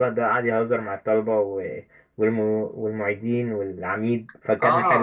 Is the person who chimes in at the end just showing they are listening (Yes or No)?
No